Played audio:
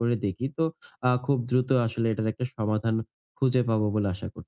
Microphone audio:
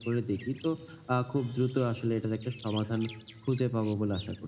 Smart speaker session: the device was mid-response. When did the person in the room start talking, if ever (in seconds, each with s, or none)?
none